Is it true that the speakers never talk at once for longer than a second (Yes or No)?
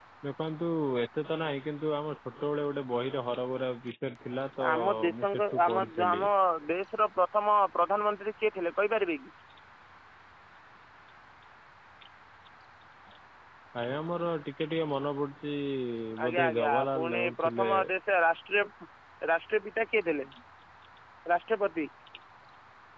No